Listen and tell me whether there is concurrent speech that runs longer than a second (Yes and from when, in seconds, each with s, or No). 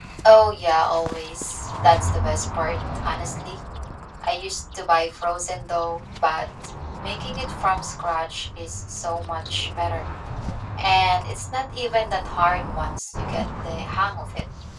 No